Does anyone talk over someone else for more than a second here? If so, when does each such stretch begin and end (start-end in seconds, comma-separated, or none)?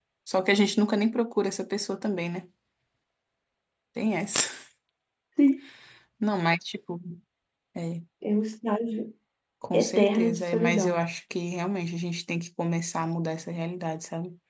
9.7-11.0